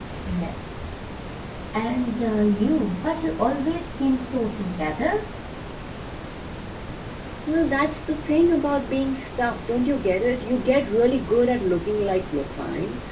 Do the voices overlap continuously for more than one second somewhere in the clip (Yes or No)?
No